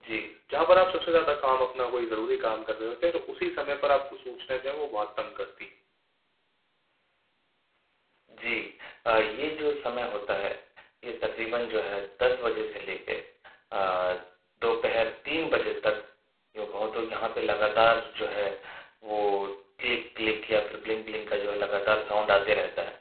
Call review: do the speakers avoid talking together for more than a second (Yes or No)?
Yes